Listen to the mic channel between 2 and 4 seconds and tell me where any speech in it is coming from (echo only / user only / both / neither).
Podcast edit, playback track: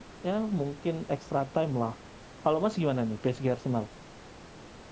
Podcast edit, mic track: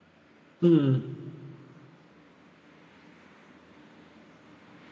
neither